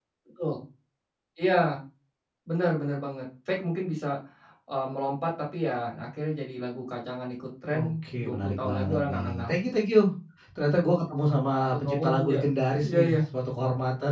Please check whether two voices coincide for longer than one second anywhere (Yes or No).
Yes